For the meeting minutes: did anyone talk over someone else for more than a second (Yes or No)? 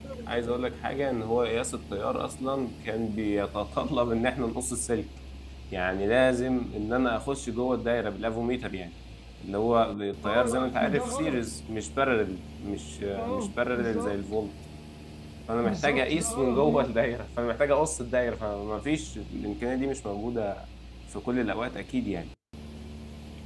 Yes